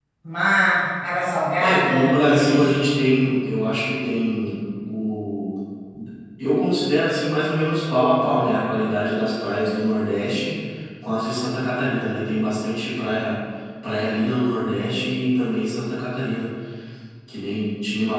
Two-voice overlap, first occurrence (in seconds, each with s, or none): 1.6 s